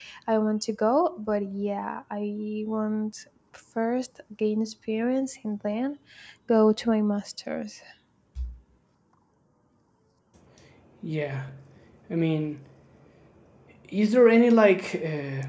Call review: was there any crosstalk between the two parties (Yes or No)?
No